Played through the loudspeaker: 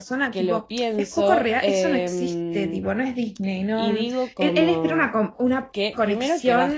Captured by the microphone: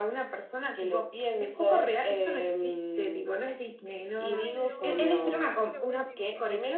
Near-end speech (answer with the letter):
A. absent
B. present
B